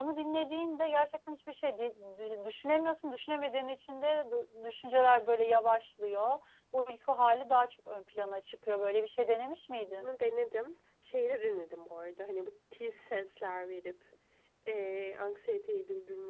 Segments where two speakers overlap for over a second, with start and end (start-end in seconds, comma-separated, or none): none